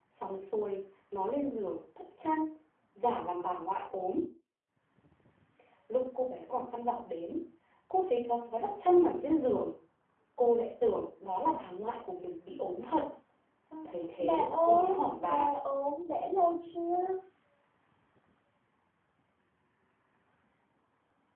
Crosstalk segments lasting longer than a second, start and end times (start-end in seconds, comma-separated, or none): 14.2-15.5